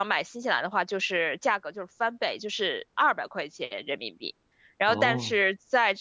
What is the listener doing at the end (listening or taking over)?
listening